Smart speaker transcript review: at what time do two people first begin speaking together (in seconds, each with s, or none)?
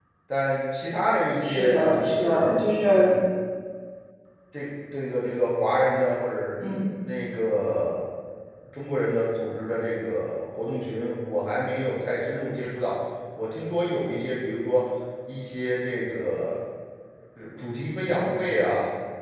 1.4 s